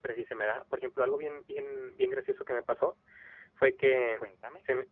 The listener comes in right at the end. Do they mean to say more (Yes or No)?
No